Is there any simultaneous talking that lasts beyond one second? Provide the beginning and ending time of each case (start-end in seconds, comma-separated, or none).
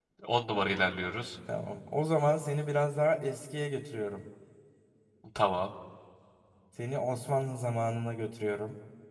none